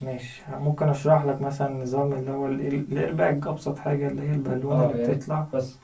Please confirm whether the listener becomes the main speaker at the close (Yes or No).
Yes